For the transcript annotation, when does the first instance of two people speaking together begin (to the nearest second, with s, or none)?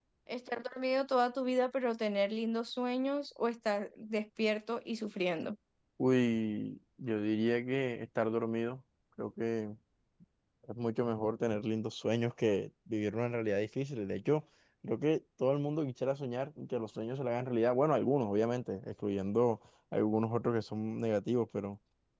none